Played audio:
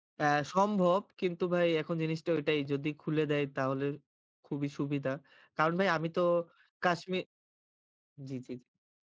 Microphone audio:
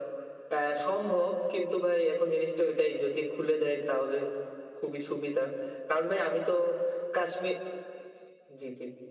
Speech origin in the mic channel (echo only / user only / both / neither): echo only